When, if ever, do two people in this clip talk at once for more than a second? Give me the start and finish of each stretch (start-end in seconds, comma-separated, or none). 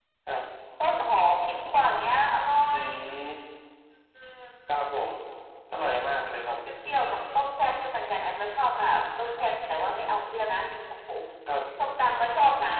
none